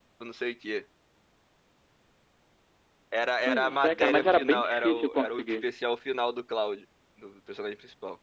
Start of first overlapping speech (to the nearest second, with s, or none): 3 s